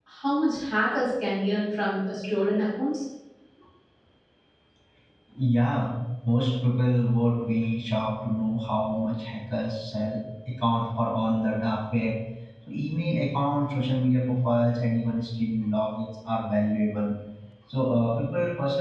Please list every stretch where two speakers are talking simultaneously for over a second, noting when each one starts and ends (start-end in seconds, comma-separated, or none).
none